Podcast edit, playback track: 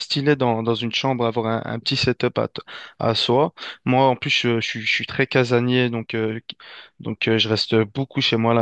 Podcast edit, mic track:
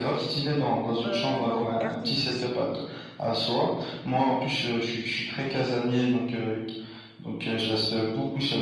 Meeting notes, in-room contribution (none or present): present